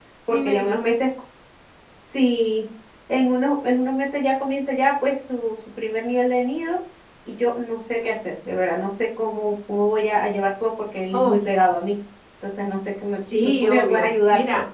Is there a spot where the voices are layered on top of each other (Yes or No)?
Yes